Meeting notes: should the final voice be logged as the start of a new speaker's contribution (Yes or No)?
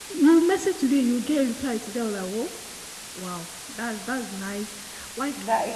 No